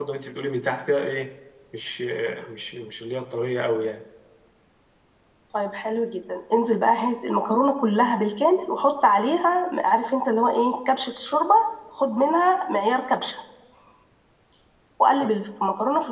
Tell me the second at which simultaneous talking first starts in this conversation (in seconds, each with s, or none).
none